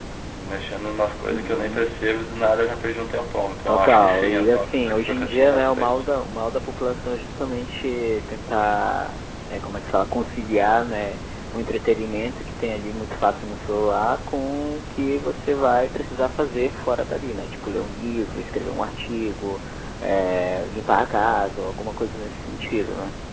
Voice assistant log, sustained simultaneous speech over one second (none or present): present